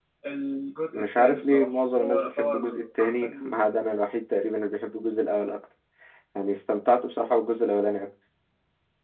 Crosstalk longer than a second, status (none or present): present